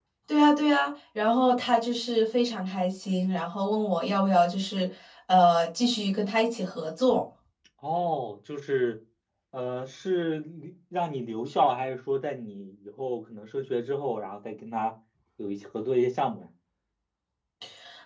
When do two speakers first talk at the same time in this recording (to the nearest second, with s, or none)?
none